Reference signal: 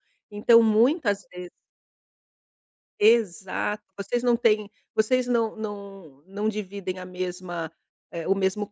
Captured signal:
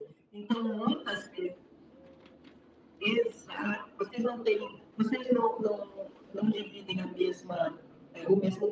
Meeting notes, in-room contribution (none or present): none